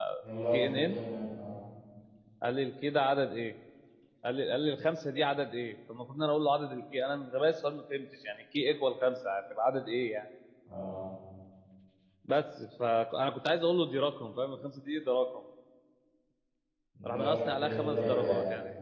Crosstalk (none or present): present